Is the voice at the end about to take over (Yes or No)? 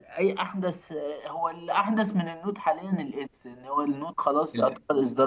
No